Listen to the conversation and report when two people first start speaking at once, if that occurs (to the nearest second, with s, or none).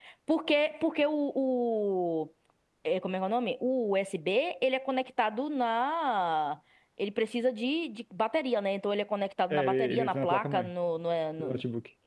10 s